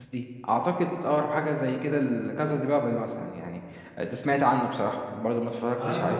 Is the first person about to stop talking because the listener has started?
Yes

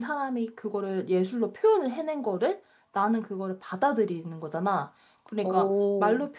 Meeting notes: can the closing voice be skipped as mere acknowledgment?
Yes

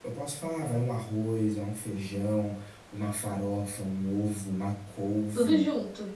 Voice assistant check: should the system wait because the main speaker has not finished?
Yes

